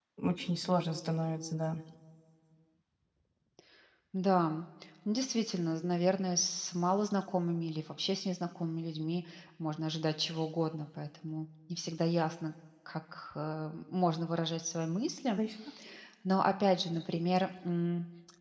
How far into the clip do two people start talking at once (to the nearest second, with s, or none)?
none